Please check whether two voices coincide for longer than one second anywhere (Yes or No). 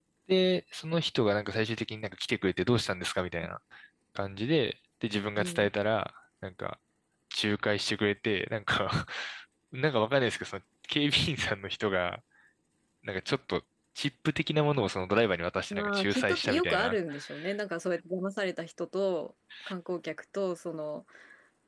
Yes